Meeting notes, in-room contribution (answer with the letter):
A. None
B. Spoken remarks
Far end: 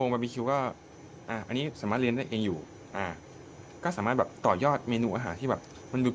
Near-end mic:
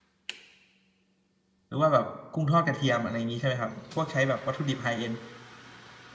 B